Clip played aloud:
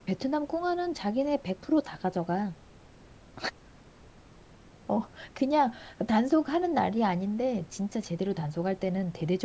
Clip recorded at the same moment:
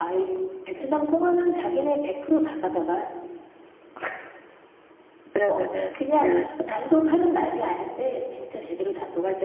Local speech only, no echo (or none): 그러면은 그,